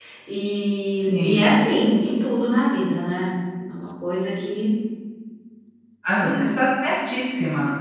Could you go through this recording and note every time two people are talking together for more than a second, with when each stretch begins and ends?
none

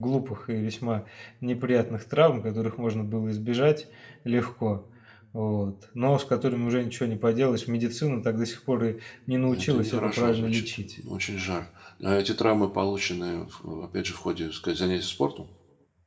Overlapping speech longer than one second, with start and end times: 9.5-10.8

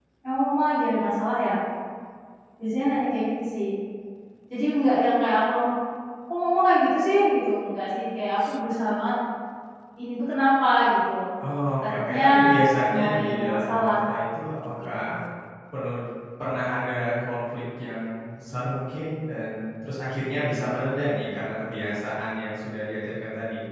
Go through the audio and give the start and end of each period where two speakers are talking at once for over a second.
11.8-14.1

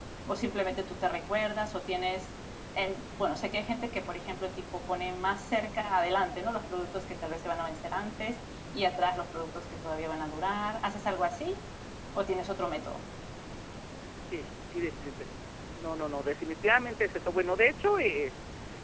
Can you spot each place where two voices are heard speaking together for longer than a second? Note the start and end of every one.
none

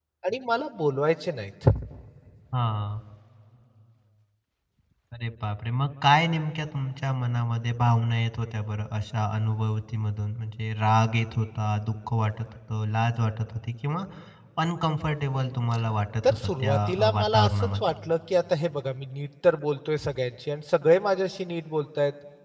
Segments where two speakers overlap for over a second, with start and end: 16.2-17.9

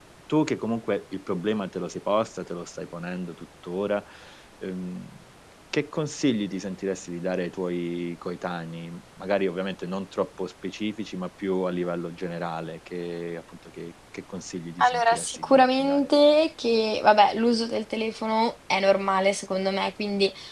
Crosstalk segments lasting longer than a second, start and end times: 14.8-16.1

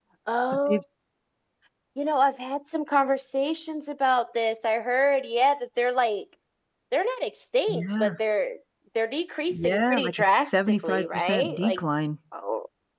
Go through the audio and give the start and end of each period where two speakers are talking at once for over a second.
9.5-11.8

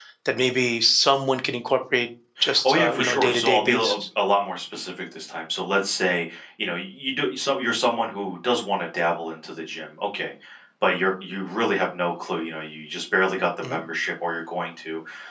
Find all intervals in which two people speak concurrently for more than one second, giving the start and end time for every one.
2.6-4.0

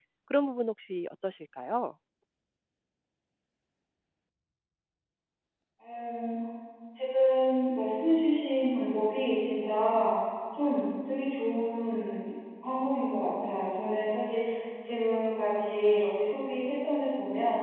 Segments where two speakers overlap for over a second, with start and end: none

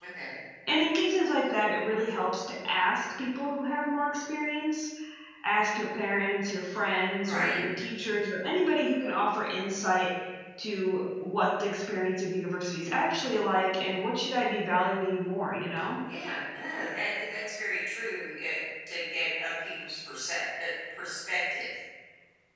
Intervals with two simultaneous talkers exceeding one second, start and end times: none

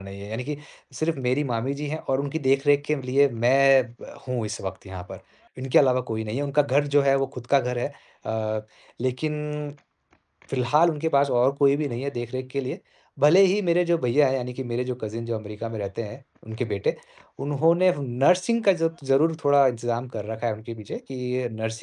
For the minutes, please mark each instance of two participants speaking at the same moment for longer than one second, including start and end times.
none

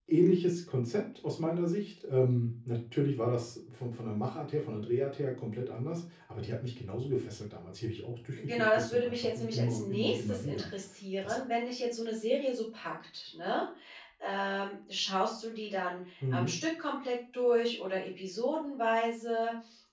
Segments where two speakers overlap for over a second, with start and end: 8.4-10.7

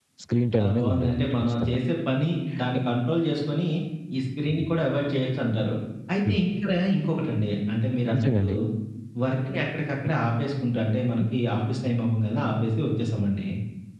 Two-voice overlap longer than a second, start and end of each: 0.6-1.8

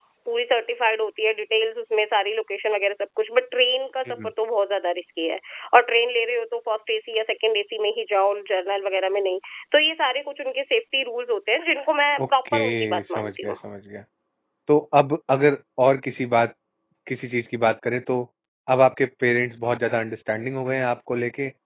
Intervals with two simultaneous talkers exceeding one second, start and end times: 12.2-13.5

